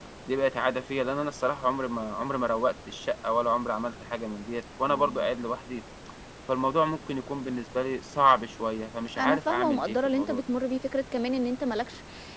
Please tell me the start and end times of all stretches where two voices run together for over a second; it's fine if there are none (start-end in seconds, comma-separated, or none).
9.2-10.4